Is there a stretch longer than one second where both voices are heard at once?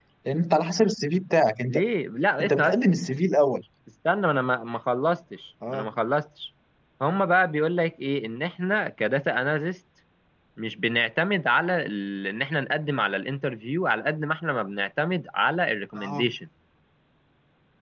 No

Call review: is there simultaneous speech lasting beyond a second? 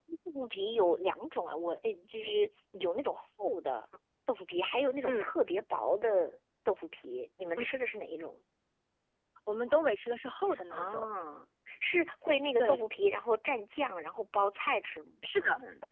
No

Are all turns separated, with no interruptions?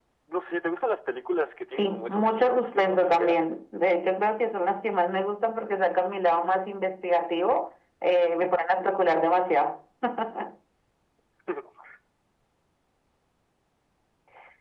No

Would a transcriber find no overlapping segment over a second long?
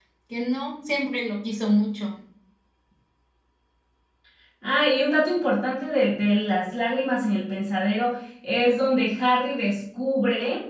Yes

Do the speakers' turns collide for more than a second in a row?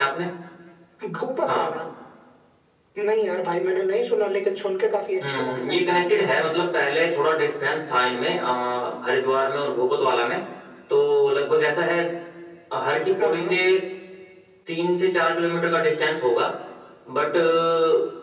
No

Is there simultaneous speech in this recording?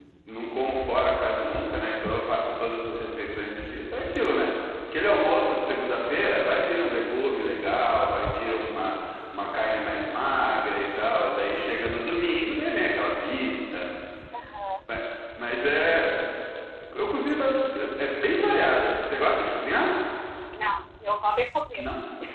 No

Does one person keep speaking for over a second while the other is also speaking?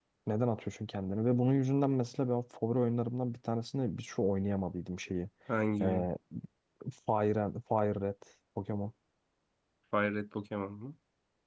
No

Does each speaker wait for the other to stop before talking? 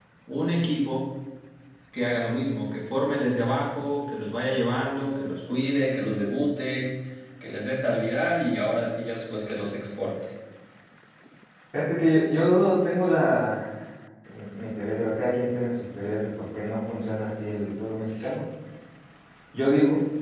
Yes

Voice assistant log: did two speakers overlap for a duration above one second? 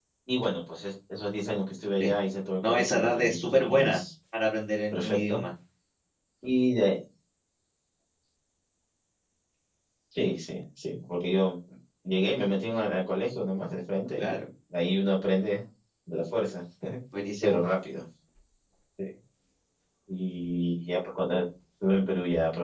Yes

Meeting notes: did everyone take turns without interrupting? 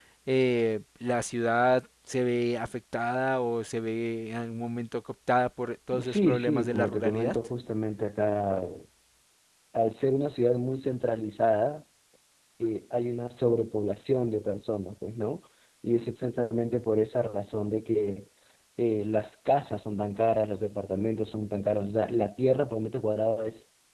No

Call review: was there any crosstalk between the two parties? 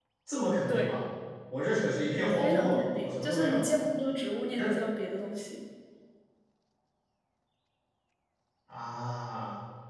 Yes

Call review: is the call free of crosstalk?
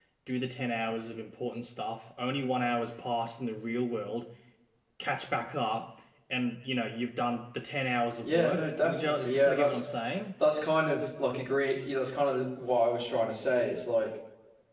No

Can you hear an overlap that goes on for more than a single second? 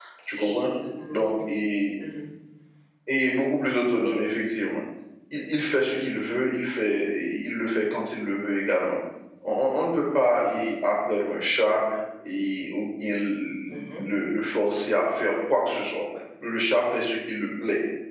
No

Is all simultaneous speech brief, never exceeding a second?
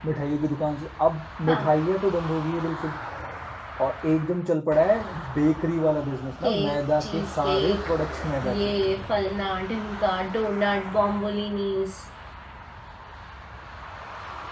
No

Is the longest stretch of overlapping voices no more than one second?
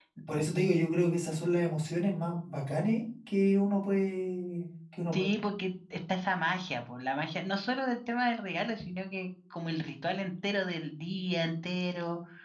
Yes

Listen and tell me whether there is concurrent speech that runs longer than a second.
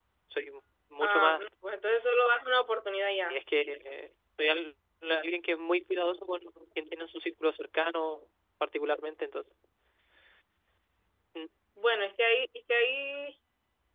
No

